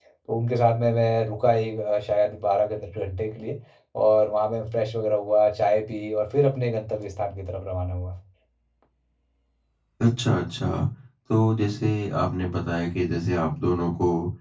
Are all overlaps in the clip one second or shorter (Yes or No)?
Yes